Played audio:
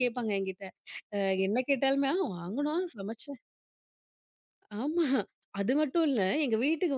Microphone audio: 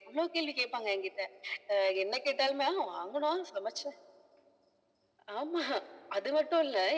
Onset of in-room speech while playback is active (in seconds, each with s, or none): none